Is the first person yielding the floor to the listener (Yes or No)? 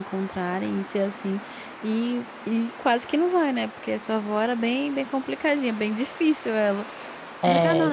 Yes